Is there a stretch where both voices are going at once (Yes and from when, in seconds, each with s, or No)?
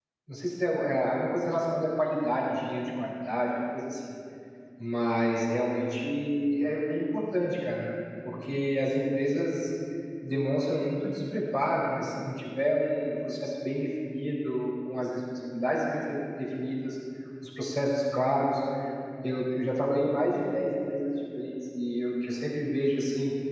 No